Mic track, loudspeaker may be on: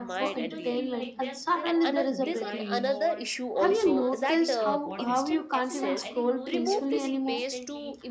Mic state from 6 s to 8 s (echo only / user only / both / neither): both